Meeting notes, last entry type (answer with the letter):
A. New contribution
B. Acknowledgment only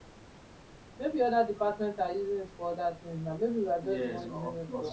A